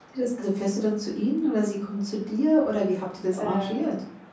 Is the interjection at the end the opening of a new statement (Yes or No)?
Yes